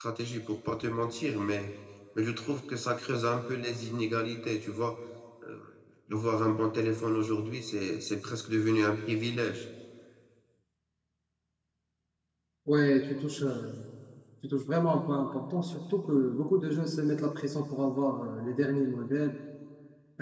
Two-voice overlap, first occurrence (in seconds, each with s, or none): none